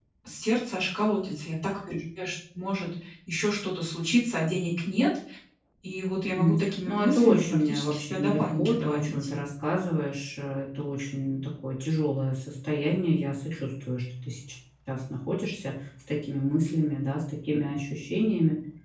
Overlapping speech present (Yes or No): Yes